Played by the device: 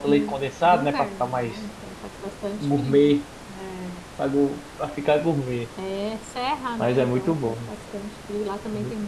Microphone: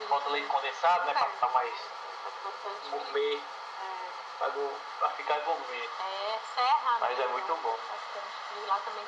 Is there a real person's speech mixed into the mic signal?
No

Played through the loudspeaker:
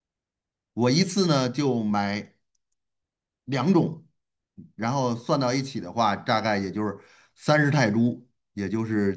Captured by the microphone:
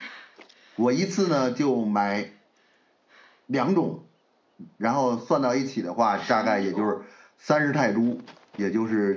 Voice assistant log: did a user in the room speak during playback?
Yes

